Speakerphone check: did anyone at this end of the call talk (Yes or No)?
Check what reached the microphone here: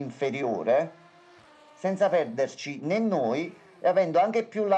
No